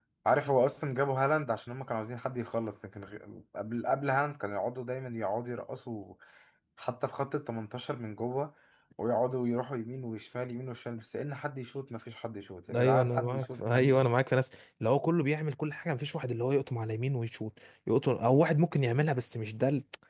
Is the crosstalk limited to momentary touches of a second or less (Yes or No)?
No